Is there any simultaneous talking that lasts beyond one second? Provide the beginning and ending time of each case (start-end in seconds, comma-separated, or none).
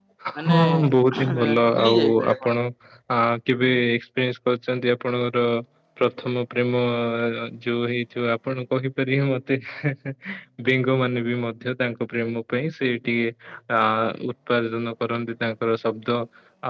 1.2-2.6